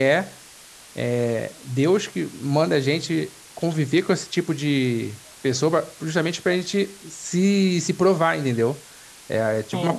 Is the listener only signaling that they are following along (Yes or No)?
Yes